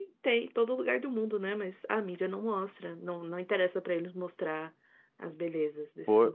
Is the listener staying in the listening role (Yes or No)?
No